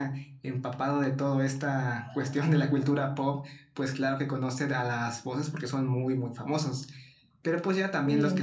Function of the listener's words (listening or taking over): listening